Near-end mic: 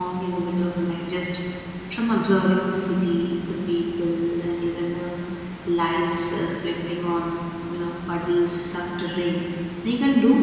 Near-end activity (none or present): present